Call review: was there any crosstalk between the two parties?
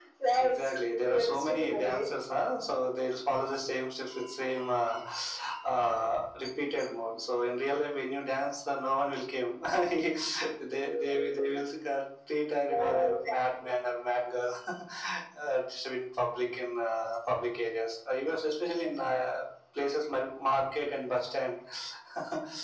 Yes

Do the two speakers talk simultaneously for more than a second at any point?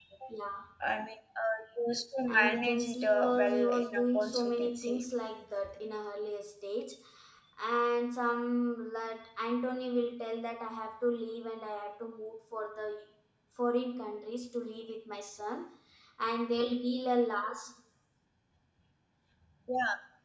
Yes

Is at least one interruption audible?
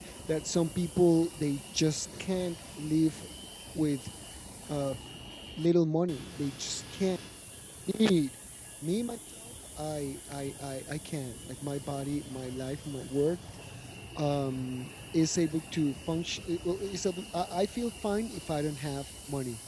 No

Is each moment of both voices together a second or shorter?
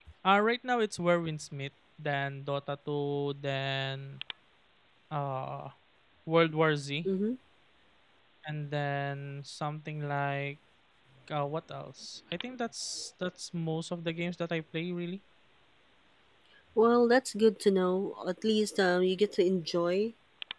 Yes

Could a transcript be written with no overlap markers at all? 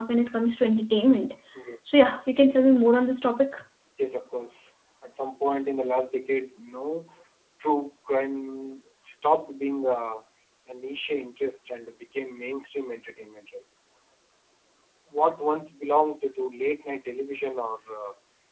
Yes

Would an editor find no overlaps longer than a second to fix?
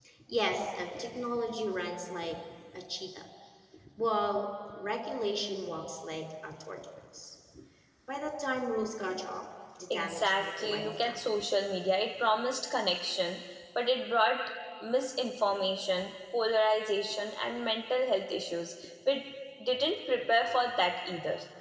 No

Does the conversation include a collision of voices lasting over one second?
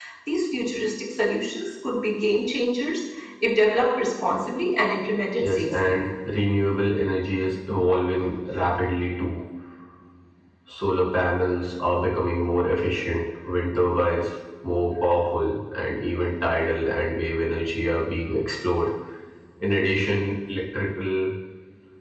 No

